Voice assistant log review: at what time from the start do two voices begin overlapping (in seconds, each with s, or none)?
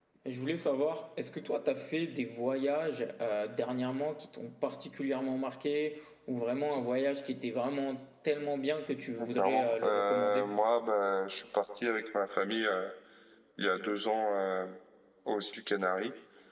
9.2 s